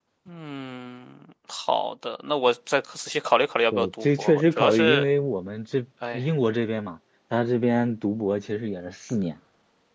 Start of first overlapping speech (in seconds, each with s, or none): 3.7 s